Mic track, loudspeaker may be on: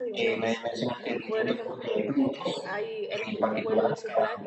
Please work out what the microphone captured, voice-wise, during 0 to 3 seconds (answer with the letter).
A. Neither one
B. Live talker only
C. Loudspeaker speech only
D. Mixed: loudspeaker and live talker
D